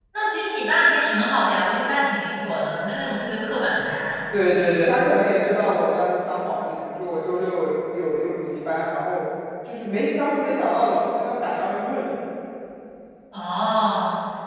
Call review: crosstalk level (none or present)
none